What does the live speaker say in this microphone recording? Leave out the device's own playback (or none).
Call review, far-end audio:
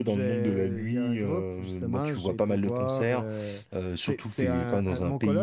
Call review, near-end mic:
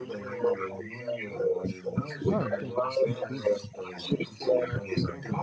Ah, ok. Cool.